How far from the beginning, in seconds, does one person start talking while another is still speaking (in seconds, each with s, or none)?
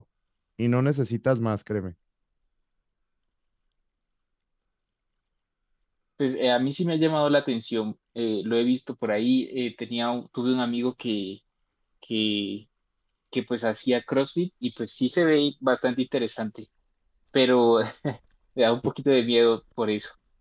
none